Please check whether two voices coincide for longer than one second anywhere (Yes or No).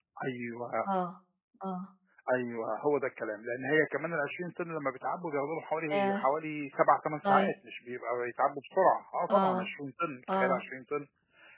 No